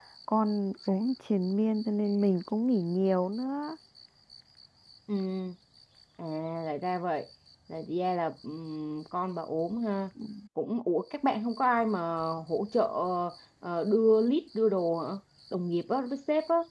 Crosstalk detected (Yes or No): No